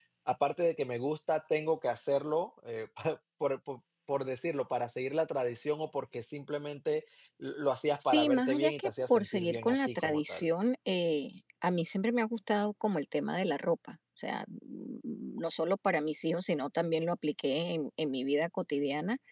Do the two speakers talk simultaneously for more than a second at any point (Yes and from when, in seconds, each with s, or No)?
Yes, from 8.0 s